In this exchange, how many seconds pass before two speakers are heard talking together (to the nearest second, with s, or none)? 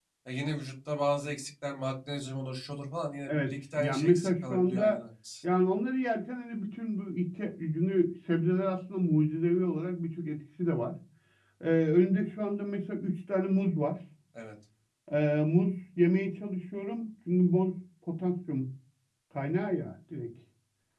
3 s